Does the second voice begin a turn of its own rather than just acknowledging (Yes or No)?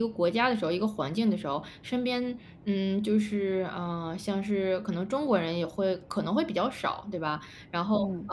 No